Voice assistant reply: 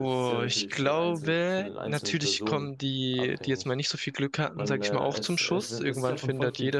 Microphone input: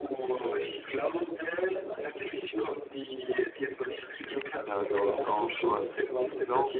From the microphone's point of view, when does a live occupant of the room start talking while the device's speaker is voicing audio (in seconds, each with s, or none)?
4.7 s